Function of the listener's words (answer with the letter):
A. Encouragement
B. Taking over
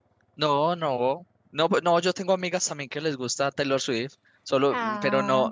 A